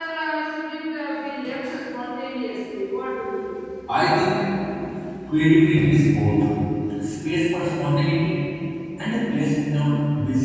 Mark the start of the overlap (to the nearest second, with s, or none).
none